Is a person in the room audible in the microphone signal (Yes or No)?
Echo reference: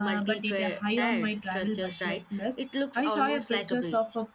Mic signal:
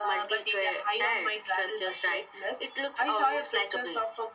No